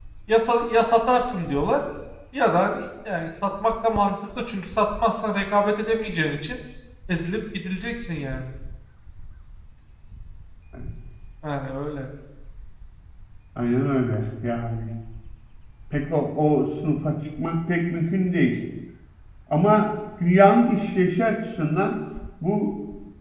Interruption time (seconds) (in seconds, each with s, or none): none